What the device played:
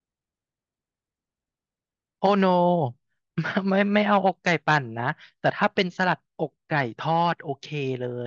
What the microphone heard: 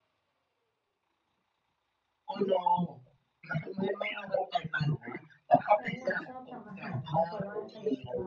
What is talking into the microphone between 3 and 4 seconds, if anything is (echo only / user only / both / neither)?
echo only